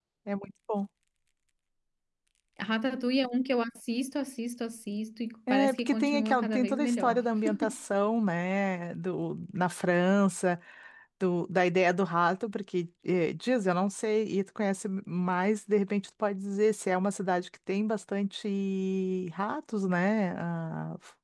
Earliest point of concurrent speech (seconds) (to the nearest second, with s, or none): 6 s